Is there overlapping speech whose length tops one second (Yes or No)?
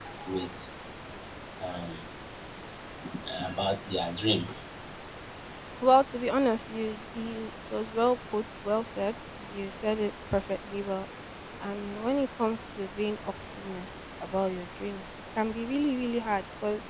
No